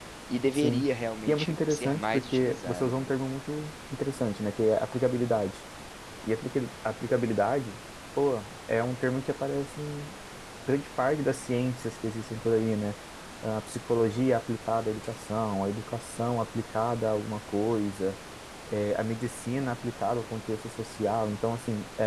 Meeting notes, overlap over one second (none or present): present